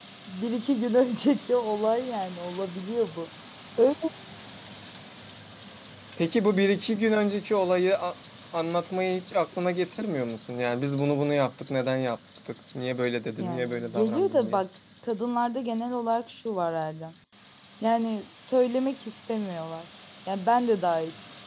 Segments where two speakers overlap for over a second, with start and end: 13.4-14.6

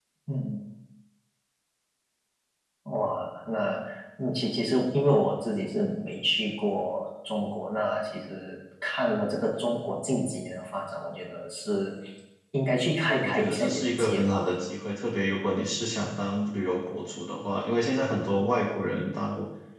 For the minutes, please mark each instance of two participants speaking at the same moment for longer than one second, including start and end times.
13.1-14.5

